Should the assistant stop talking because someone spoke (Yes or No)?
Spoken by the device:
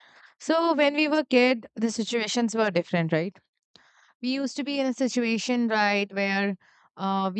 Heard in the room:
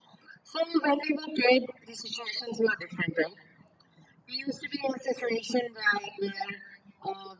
No